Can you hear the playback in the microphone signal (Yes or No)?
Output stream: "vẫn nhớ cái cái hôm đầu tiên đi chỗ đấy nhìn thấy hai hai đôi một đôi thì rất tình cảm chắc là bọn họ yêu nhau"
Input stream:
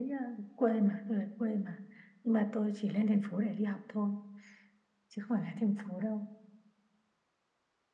No